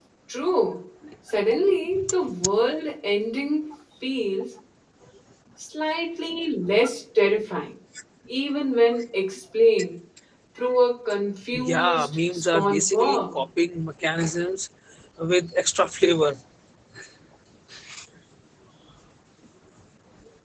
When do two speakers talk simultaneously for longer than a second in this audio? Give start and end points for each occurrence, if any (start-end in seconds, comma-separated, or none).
11.6-13.4